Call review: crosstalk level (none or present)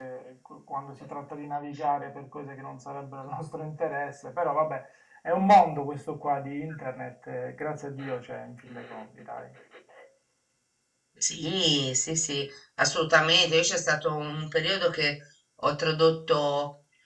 none